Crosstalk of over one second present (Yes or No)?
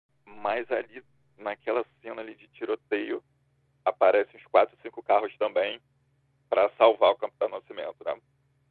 No